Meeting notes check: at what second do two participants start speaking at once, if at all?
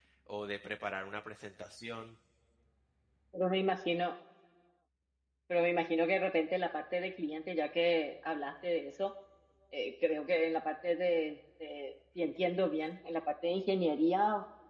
none

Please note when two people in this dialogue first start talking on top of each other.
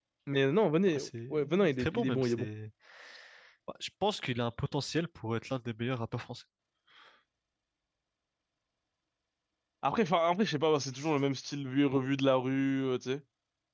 0.9 s

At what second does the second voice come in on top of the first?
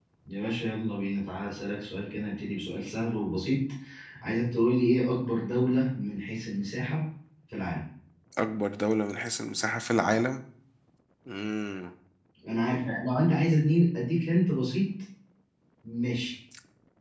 none

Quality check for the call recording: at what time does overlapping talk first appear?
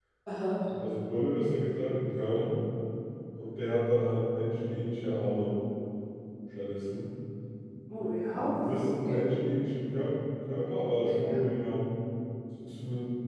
8.0 s

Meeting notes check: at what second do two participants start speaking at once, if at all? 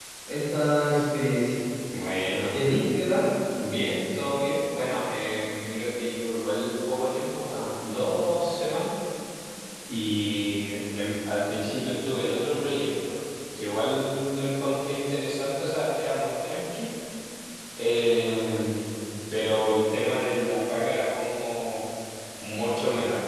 none

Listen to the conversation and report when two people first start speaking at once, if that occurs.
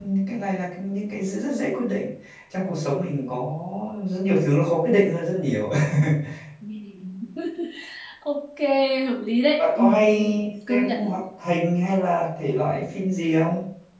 9.6 s

